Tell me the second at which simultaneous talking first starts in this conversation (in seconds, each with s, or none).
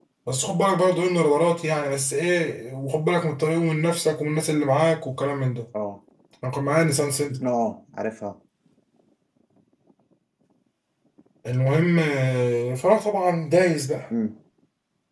none